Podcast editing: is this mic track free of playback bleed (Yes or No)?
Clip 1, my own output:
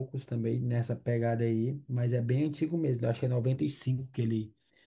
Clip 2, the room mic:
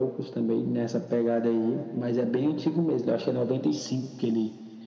No